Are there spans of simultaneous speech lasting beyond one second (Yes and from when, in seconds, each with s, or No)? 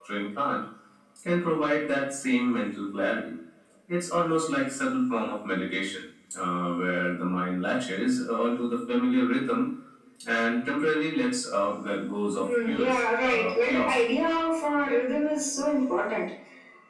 Yes, from 12.4 s